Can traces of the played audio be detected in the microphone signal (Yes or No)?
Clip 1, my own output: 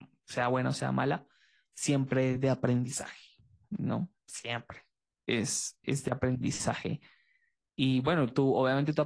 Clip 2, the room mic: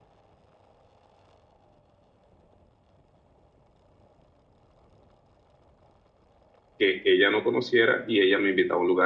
No